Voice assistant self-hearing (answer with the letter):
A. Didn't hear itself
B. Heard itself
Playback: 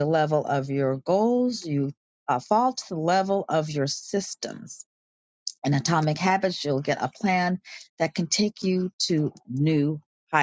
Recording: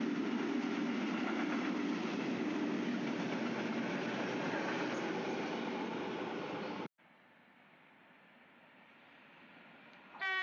A